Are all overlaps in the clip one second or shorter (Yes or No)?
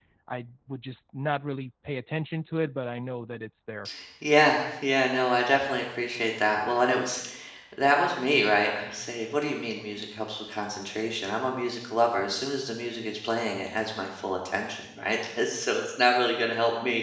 Yes